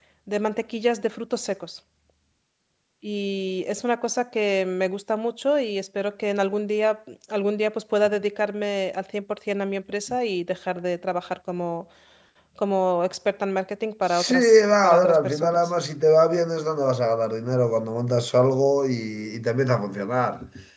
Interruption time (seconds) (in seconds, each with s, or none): 14.1 s